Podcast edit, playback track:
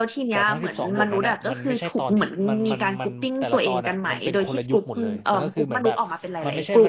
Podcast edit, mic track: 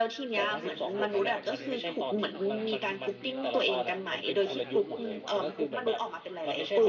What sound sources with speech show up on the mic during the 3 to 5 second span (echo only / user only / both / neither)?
both